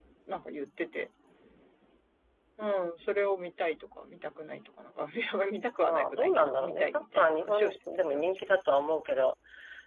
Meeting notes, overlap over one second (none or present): present